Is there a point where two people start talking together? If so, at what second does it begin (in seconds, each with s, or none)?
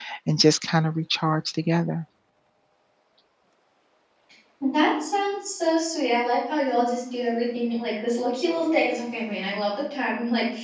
none